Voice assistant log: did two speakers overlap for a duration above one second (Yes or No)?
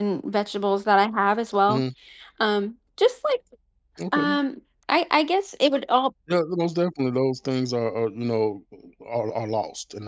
No